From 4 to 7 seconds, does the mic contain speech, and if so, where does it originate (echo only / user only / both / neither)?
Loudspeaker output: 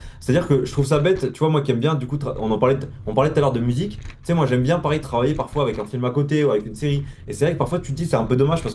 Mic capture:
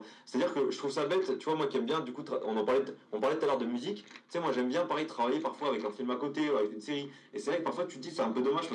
echo only